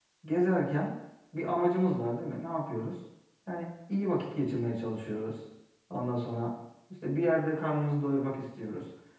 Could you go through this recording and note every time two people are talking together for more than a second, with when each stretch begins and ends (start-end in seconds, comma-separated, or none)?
none